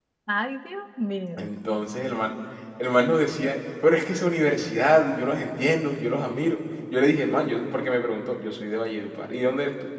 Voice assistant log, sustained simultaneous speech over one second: none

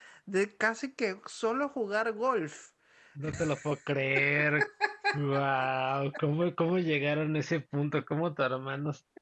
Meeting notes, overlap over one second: none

